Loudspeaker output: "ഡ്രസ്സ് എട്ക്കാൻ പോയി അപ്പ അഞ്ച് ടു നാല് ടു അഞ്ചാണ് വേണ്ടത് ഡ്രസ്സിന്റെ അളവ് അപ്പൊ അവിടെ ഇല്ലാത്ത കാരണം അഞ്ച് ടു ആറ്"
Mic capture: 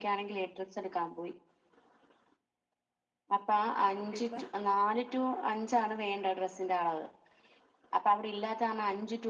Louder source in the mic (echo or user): echo